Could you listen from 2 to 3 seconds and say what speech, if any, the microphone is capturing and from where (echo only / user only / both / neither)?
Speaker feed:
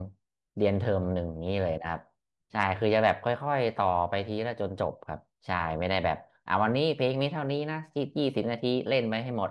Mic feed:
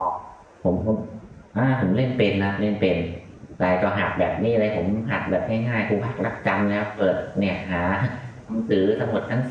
user only